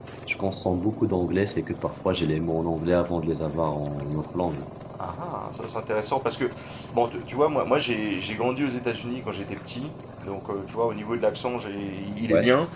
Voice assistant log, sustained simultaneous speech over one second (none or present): none